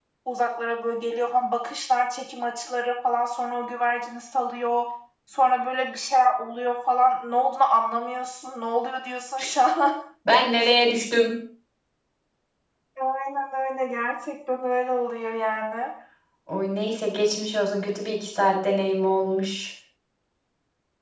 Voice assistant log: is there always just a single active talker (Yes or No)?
Yes